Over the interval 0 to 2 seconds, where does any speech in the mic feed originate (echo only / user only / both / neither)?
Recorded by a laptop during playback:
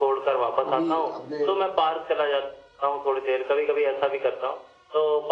both